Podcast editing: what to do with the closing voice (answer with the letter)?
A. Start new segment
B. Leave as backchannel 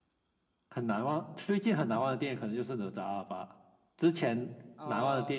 B